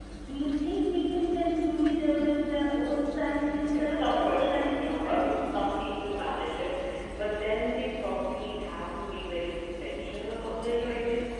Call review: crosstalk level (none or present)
present